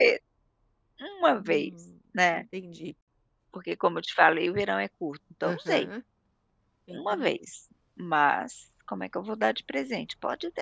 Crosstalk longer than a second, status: none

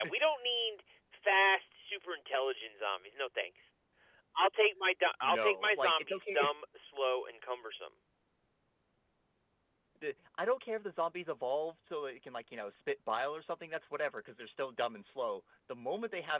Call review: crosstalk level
present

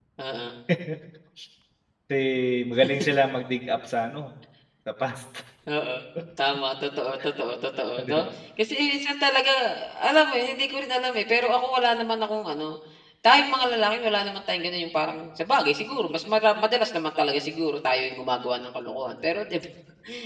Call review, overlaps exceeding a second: none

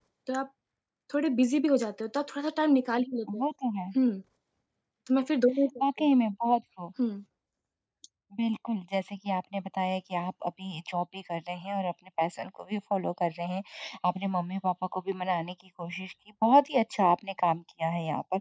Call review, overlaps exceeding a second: none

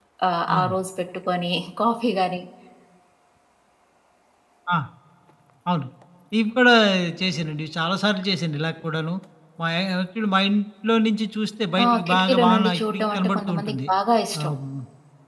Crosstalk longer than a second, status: present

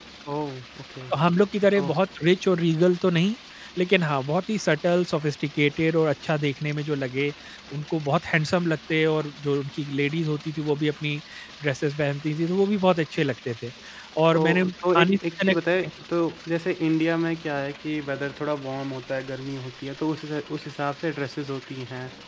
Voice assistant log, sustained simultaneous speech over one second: present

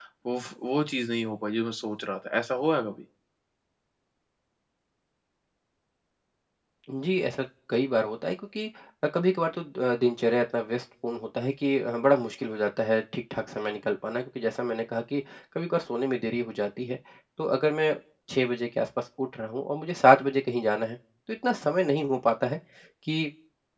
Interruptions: none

